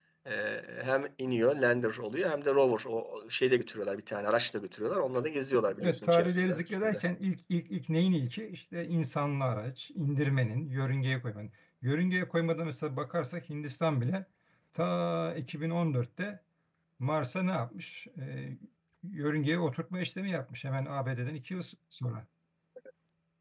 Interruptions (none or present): present